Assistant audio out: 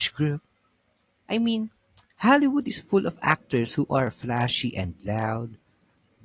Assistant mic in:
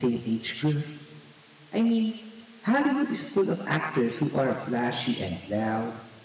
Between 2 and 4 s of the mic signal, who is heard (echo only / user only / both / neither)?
echo only